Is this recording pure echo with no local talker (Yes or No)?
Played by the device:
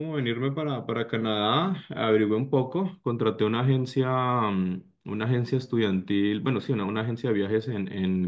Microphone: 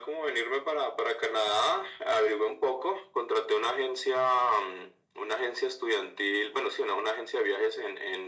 Yes